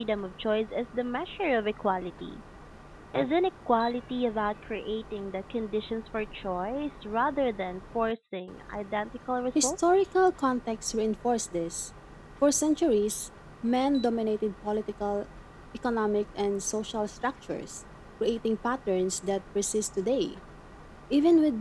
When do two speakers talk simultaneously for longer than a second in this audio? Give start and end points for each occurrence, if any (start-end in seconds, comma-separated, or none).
none